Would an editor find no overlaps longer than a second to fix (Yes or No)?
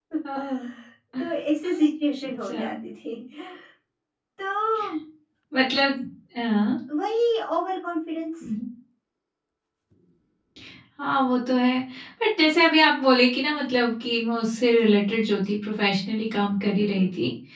Yes